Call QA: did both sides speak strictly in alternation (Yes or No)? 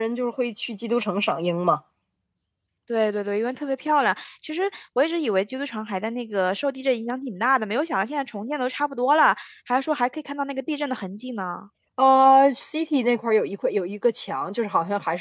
Yes